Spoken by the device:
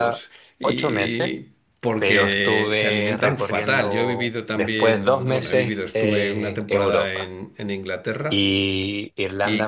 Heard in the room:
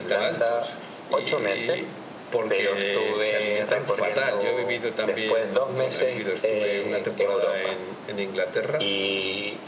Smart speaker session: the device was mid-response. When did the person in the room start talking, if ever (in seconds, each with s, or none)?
none